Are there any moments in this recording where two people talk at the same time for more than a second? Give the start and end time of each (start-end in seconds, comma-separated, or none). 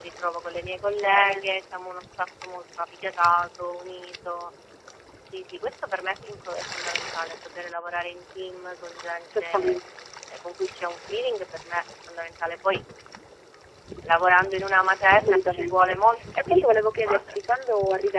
15.1-17.4